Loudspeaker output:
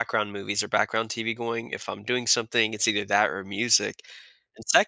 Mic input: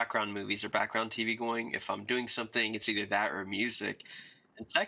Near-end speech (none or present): none